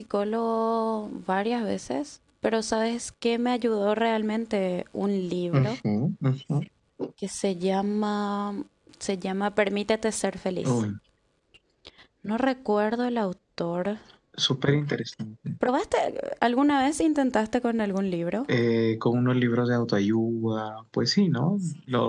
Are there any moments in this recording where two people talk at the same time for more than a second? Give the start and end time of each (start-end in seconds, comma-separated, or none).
none